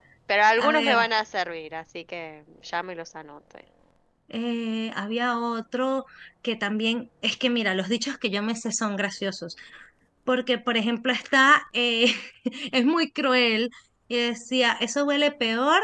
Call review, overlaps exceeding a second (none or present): none